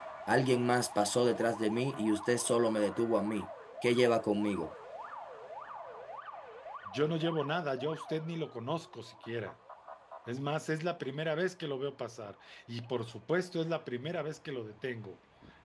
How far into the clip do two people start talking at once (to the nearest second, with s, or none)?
none